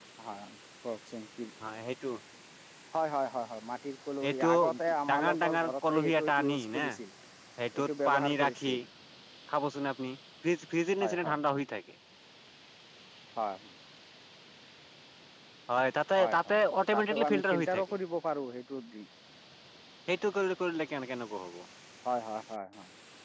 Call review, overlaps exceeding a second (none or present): present